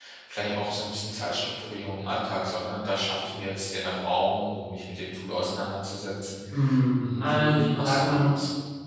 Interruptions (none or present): present